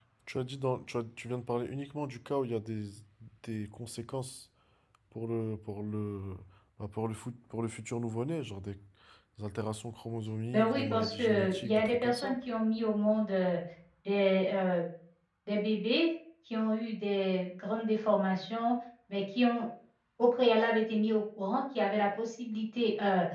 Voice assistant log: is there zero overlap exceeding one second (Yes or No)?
No